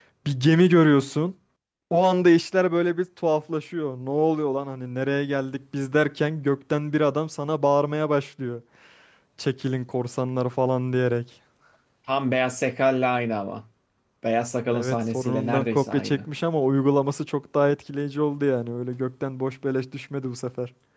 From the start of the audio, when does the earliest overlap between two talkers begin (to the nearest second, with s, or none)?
15 s